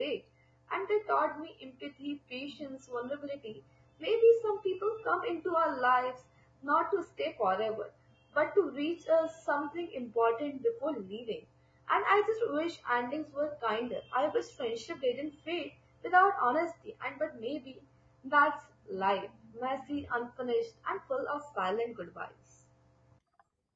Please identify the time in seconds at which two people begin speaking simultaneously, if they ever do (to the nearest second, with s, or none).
none